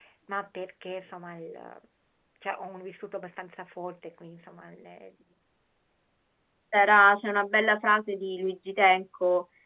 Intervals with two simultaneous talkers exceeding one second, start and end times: none

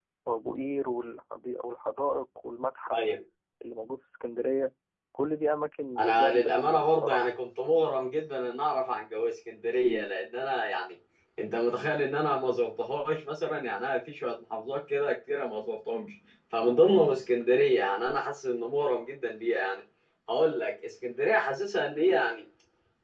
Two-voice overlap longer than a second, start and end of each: 6.0-7.3

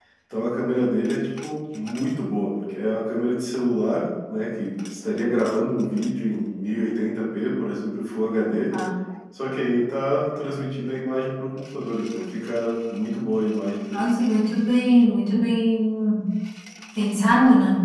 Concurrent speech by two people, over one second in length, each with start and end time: none

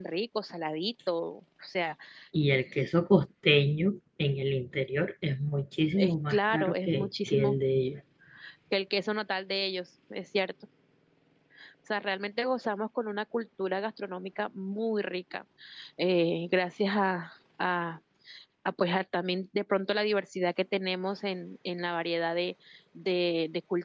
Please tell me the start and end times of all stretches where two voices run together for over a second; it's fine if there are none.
6.0-7.6

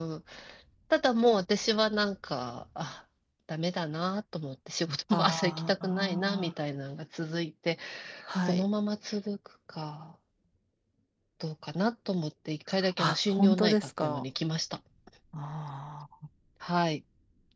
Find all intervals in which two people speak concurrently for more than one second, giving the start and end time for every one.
5.1-6.5, 13.0-14.2

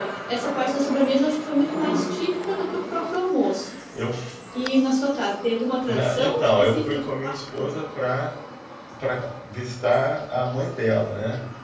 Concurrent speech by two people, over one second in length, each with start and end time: 5.9-7.6

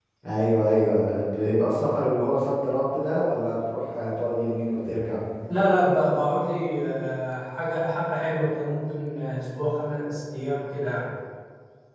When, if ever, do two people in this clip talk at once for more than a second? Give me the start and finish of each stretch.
none

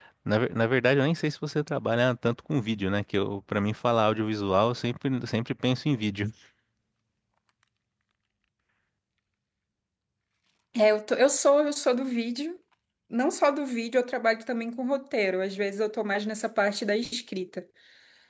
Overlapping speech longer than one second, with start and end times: none

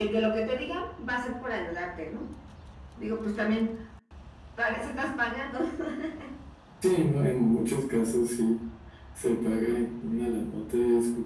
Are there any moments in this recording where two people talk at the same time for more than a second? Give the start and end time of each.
none

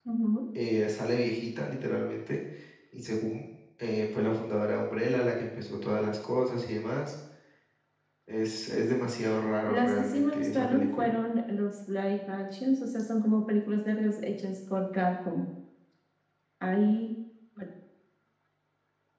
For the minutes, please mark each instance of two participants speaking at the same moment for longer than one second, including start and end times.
9.7-11.1

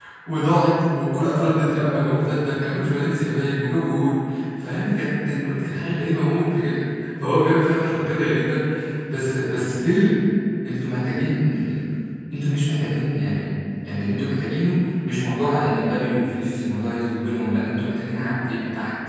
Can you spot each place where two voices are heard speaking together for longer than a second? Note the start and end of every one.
1.1-2.4

